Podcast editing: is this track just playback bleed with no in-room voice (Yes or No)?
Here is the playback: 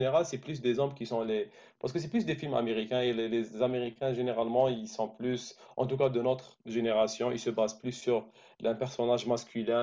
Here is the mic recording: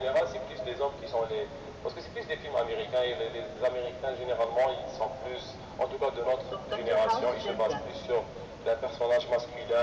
No